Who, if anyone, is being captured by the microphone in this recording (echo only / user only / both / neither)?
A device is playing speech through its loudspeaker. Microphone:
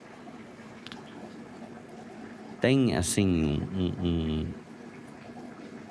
user only